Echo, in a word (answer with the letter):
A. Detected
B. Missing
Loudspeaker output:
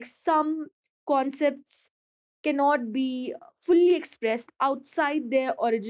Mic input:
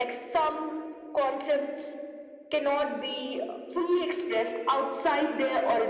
A